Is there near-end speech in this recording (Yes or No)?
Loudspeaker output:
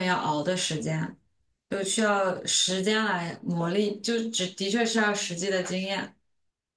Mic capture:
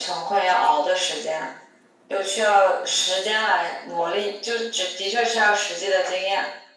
No